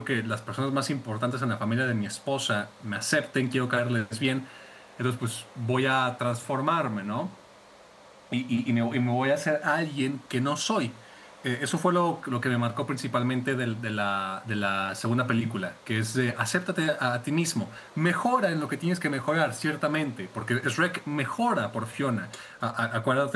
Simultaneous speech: No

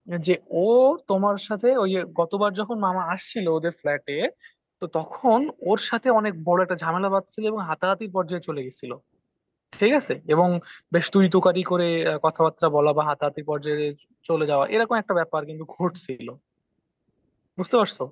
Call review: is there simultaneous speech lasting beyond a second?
No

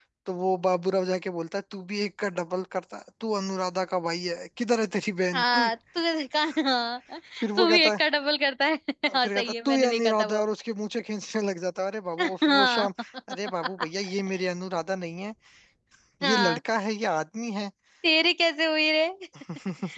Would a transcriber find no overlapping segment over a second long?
No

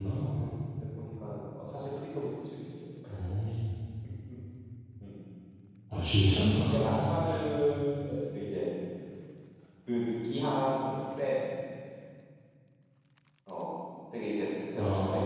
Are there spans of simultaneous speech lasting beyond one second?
No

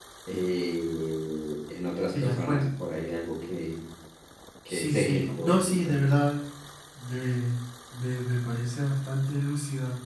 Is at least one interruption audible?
Yes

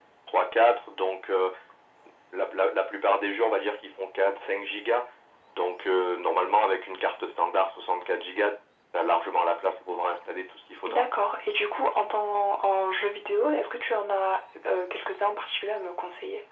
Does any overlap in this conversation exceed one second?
No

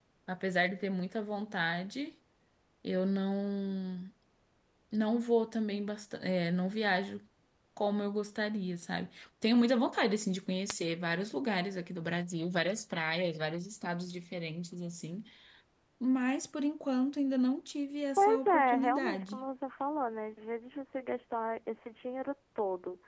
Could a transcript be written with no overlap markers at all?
No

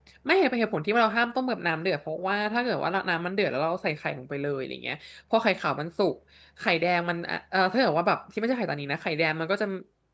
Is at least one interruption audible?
No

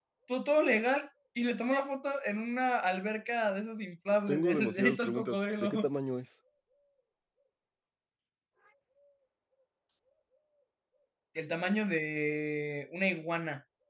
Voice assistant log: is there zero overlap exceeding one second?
No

